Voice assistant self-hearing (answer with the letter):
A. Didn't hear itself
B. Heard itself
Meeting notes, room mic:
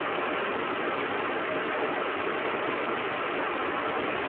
A